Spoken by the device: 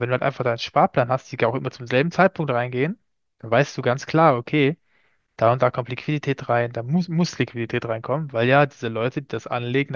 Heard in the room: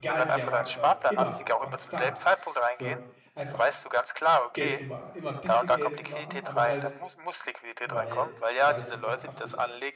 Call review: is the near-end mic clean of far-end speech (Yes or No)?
No